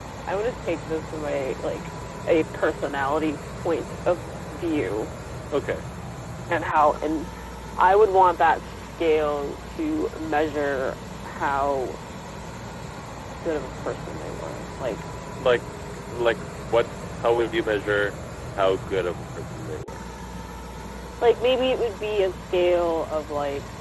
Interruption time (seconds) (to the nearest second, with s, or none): none